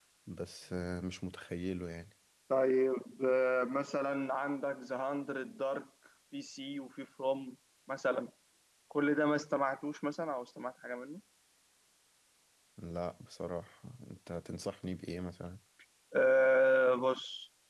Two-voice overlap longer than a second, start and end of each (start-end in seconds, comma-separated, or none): none